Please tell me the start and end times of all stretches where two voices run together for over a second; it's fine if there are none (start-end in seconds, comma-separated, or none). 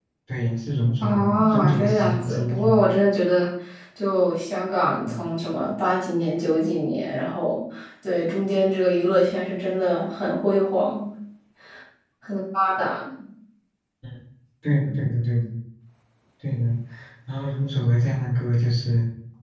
1.0-2.8